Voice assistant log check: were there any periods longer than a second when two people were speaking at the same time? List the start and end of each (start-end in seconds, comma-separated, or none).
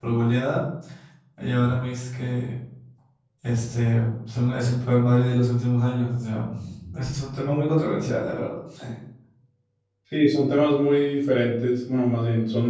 none